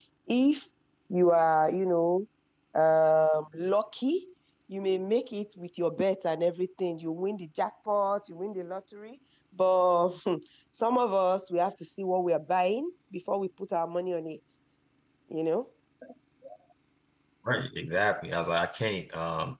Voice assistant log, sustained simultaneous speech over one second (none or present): none